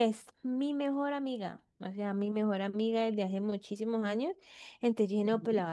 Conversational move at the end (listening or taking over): listening